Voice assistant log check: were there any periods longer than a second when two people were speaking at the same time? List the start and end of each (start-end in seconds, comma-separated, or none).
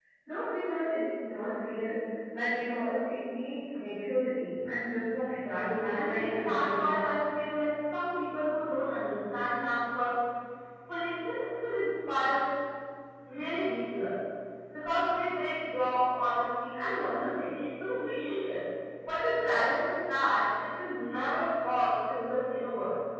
5.2-6.9